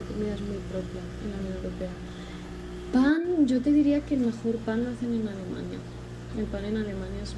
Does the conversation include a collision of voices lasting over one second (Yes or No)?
No